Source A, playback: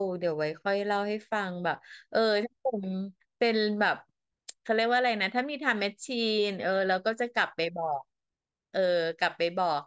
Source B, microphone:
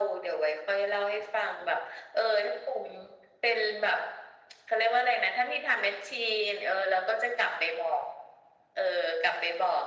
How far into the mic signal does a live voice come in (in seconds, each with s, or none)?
none